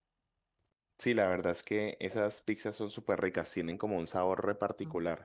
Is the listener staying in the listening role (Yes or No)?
No